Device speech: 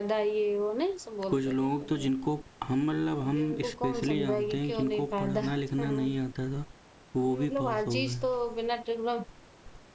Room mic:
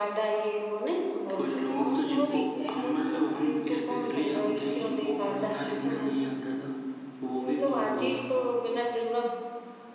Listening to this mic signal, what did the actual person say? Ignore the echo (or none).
और तो और ये लोग